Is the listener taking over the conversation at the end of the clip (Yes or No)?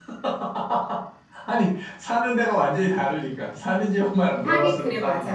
Yes